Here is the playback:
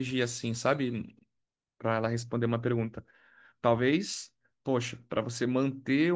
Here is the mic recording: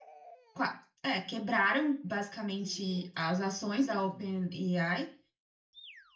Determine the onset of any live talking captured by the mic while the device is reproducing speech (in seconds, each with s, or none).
0.5 s